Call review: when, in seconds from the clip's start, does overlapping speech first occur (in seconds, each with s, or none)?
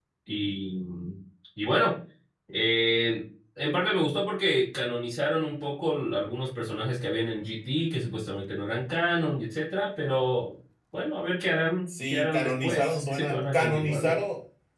11.9 s